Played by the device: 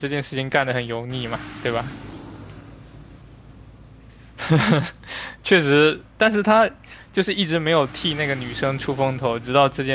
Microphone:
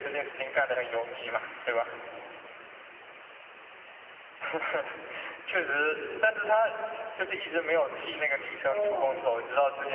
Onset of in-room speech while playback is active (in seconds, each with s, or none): 8.5 s